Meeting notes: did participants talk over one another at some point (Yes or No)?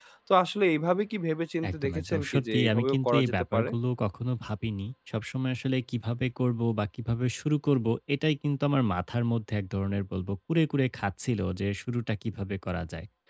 Yes